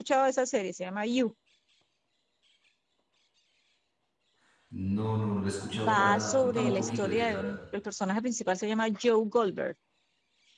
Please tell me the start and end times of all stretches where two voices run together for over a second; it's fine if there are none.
5.7-7.6

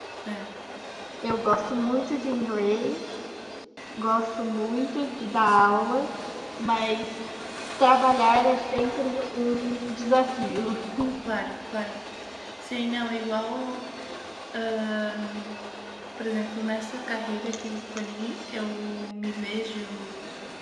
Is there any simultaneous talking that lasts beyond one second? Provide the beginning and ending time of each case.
none

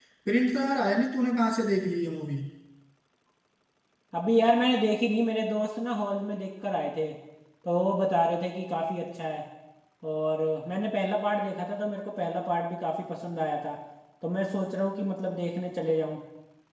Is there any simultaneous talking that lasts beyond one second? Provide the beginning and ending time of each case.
none

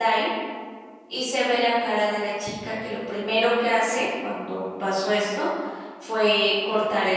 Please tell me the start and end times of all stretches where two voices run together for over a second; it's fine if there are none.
none

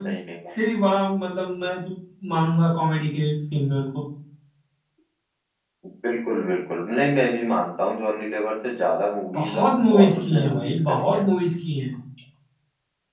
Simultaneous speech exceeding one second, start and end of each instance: 9.3-11.3

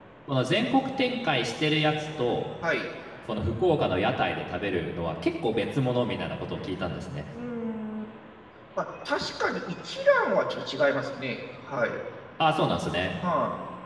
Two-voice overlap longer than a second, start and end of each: none

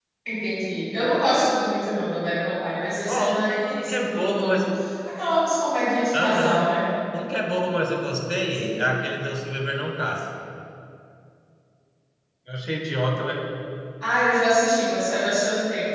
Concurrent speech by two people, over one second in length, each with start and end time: 3.1-4.6

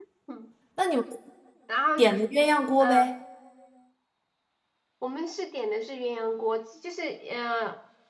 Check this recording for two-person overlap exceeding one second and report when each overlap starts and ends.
none

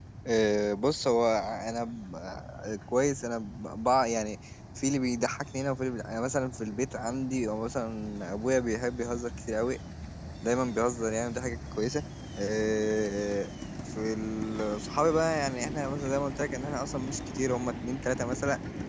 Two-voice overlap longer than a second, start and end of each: none

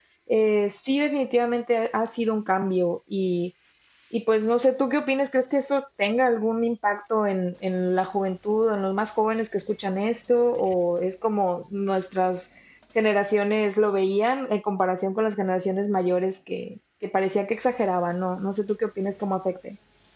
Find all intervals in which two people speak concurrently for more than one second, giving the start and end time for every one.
none

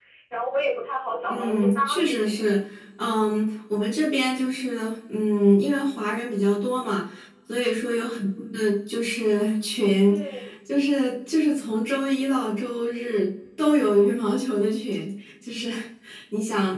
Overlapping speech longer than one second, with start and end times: 1.3-2.5

